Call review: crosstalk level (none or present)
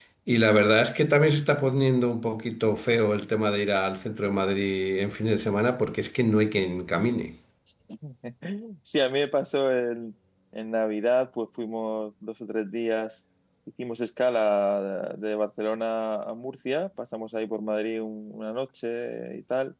none